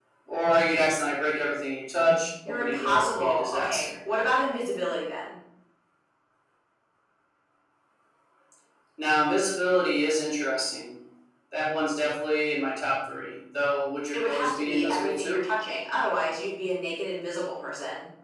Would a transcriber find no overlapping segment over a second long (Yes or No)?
No